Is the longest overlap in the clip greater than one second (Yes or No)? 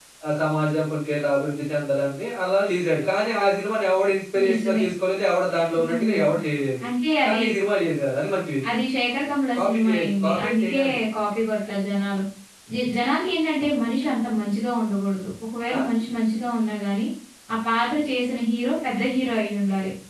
Yes